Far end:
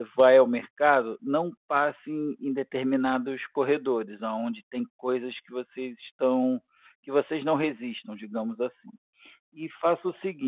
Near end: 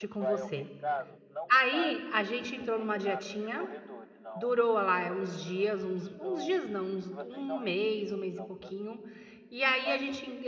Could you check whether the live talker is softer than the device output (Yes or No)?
No